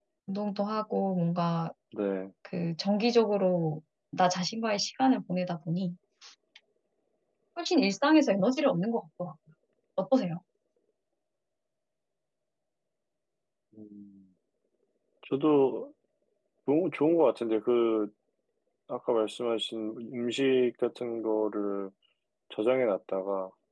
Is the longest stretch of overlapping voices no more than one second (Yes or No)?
Yes